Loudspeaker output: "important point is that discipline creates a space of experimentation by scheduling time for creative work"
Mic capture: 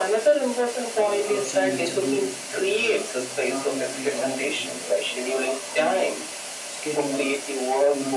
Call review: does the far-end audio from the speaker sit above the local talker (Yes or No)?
Yes